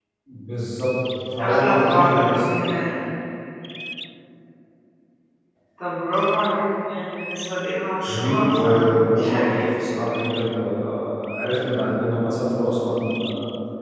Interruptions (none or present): present